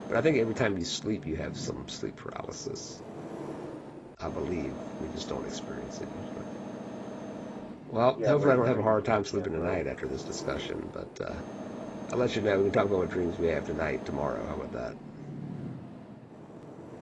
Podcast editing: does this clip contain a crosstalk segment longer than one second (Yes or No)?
Yes